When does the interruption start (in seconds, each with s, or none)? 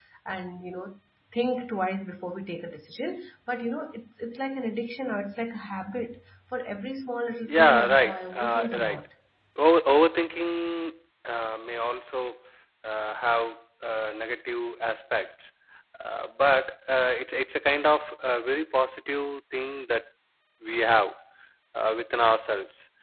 7.5 s